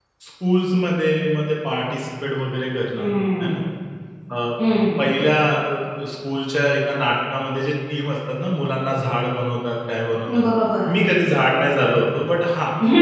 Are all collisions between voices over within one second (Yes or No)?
Yes